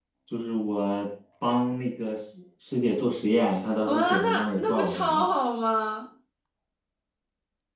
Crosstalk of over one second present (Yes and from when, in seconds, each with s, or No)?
Yes, from 3.7 s